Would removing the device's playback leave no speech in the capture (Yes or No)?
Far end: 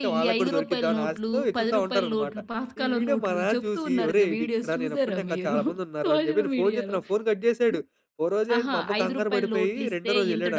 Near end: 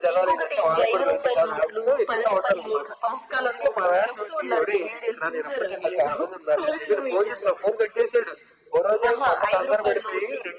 Yes